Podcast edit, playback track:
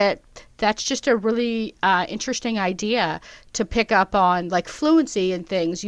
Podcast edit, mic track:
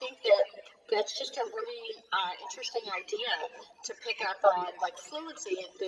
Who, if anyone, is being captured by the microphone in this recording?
echo only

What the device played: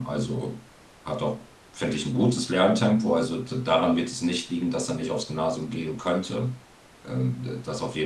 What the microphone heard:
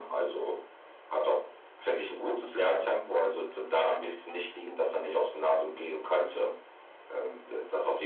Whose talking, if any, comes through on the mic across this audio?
echo only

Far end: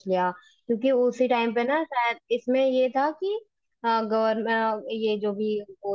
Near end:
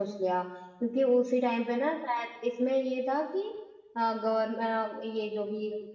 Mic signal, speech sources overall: echo only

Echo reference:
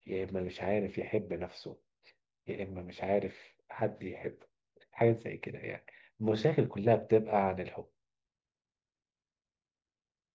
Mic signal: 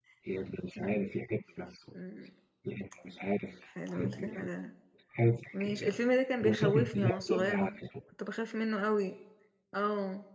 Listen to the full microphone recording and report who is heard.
both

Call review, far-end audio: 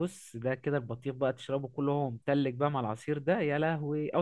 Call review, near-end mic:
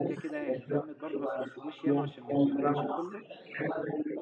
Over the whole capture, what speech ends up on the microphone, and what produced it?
both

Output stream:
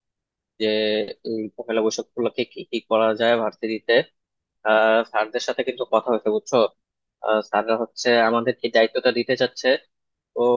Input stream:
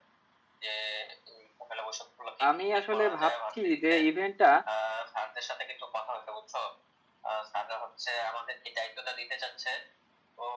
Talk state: both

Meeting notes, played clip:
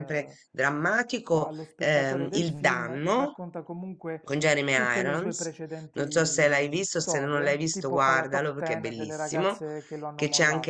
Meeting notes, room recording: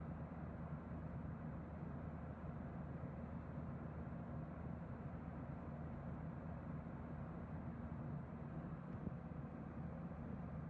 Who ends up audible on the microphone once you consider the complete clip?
neither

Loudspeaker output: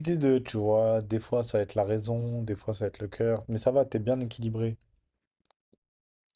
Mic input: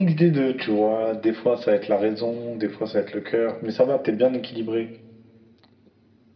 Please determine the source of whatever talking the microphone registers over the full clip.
echo only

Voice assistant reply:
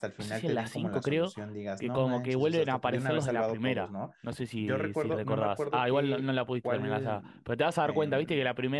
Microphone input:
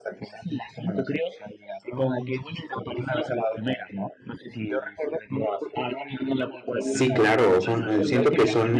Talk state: both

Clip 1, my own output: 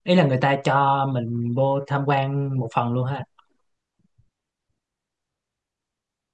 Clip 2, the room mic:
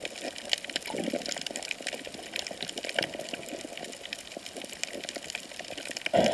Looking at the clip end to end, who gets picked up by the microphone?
neither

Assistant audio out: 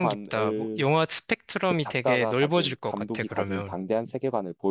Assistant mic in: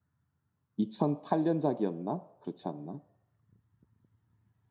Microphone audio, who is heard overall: user only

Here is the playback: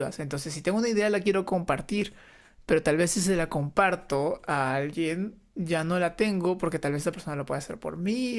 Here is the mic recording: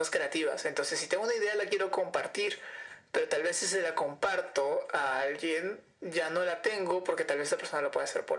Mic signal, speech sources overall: echo only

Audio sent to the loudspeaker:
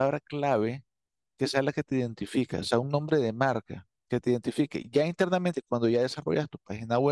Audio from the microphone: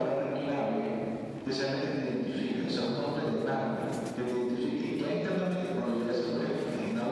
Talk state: echo only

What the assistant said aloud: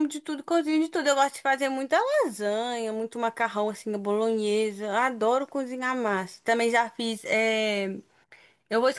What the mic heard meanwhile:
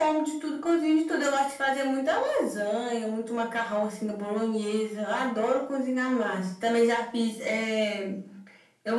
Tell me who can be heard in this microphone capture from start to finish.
echo only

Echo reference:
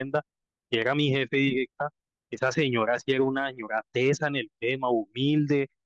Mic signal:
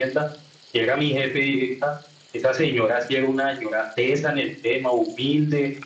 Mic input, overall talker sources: echo only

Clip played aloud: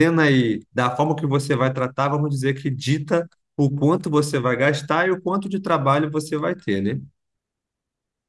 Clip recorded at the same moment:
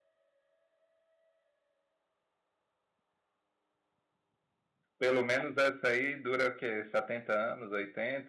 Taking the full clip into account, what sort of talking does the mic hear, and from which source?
user only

